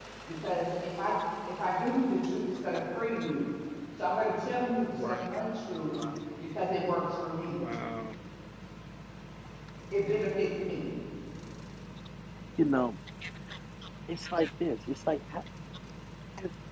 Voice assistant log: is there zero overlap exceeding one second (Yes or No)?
Yes